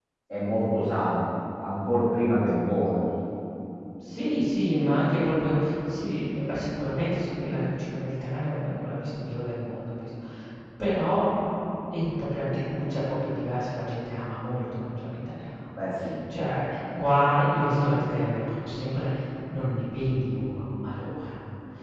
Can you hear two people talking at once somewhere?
No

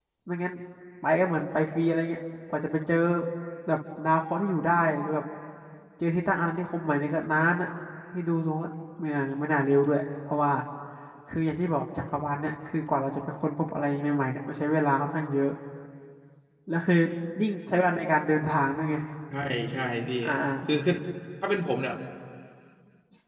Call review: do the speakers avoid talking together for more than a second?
Yes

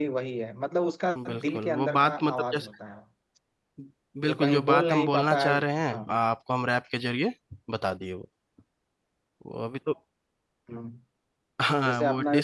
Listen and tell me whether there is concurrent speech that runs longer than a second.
Yes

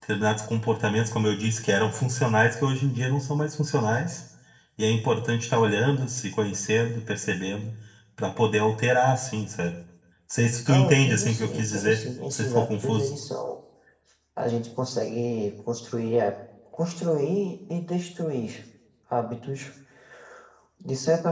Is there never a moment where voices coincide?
No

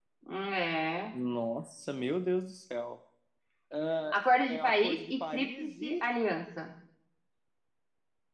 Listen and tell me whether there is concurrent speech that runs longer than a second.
Yes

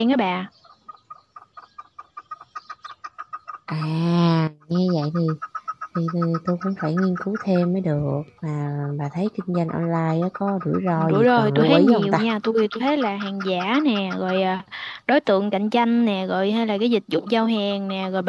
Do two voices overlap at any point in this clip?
Yes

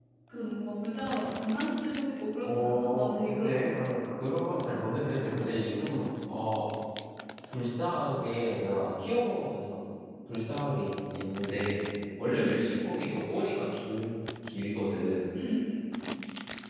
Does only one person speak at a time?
No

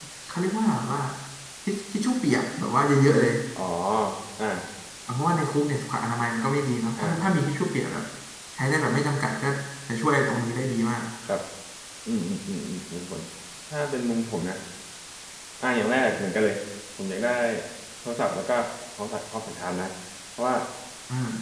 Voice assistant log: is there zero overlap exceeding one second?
Yes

